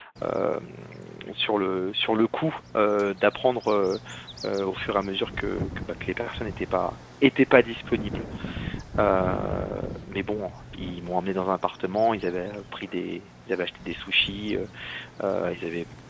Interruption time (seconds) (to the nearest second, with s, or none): none